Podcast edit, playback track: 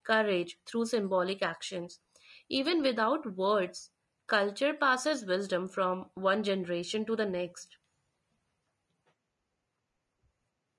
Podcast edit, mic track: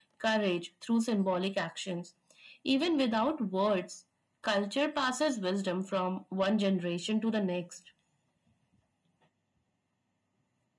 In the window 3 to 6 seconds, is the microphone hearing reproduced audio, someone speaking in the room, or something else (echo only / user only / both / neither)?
echo only